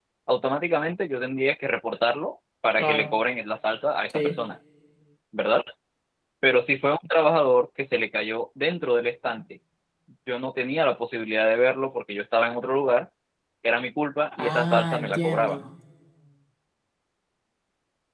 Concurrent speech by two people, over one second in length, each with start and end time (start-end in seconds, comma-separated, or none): 14.4-15.6